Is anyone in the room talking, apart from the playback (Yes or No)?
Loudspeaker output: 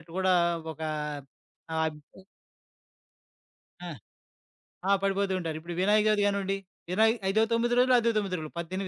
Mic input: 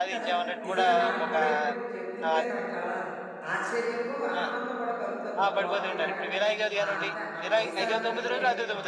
Yes